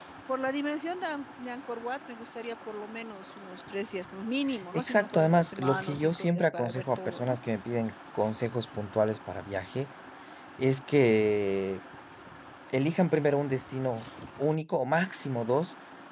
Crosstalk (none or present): present